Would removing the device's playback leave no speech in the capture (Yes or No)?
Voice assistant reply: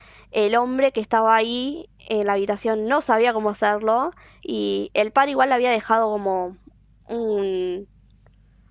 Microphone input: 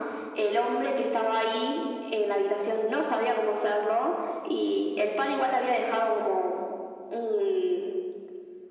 Yes